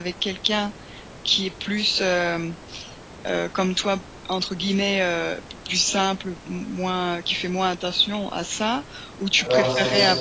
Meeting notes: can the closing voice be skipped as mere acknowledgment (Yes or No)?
No